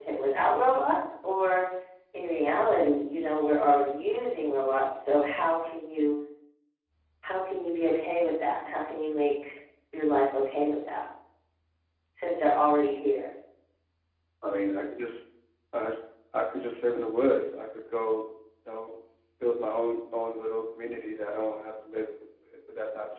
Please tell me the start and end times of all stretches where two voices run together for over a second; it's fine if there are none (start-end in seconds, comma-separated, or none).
none